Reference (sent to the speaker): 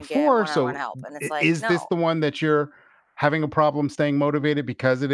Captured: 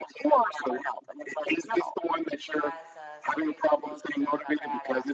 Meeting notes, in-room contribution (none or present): present